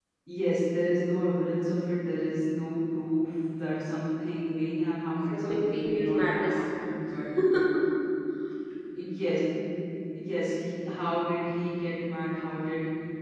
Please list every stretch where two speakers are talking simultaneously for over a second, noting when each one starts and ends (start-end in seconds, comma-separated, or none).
5.3-6.6